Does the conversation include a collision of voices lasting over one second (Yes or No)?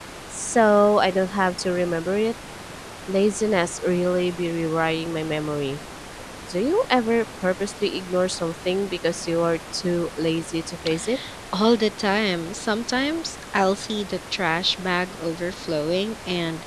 No